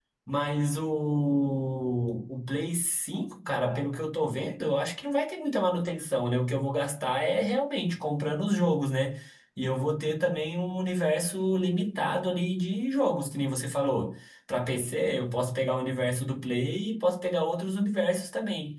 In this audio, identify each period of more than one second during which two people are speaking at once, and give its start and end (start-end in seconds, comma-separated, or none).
none